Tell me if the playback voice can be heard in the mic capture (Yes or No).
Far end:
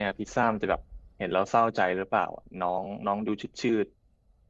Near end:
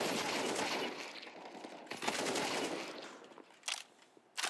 No